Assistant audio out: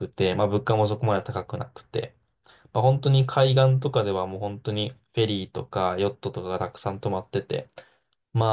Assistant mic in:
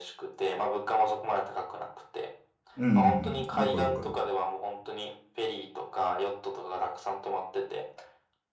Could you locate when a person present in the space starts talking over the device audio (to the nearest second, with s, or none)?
3 s